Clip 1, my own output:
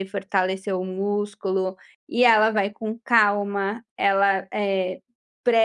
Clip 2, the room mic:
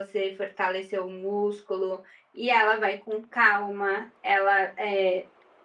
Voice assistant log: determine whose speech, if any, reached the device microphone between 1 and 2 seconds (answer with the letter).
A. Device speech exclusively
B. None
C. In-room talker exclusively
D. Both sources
A